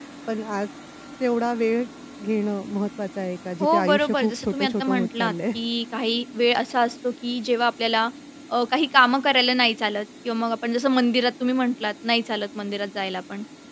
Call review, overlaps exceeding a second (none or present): present